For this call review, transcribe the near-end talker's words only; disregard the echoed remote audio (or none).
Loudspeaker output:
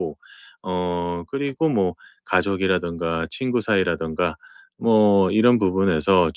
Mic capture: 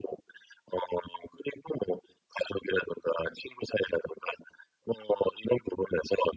none